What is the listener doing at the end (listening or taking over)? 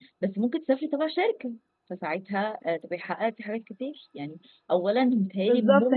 taking over